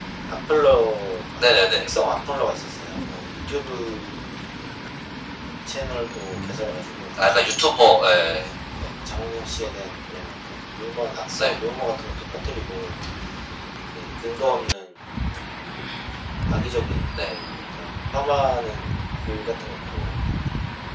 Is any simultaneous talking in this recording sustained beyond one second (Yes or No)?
No